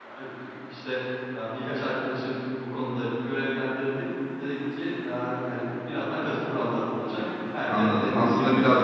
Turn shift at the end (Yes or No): Yes